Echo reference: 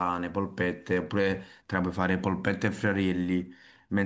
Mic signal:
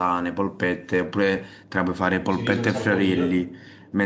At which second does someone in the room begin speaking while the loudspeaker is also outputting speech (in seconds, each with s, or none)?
2.0 s